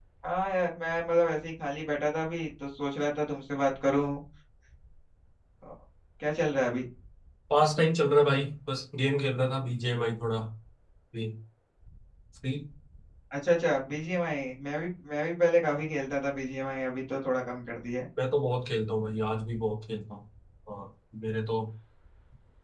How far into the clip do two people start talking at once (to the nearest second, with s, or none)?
none